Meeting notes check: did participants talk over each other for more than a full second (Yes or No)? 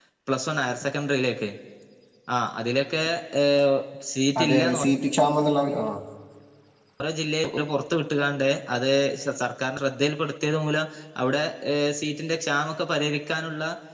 No